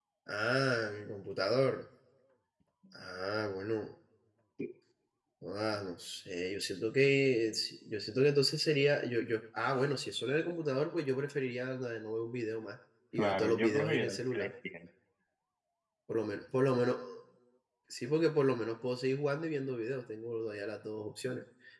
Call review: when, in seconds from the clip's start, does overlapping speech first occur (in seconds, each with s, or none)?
13.2 s